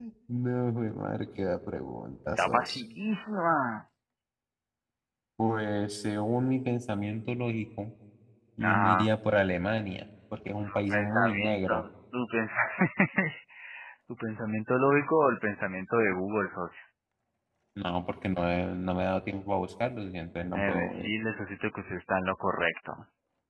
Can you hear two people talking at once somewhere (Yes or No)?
Yes